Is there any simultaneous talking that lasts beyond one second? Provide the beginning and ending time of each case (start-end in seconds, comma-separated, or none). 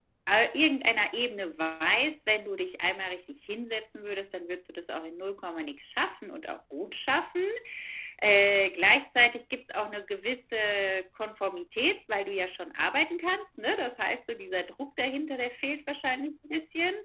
none